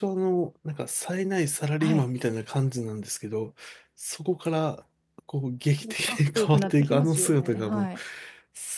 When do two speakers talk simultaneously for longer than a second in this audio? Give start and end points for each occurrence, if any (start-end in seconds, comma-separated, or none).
6.1-7.9